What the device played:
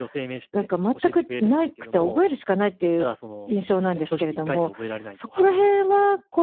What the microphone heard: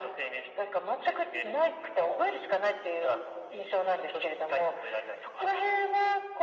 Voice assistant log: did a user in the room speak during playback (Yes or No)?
No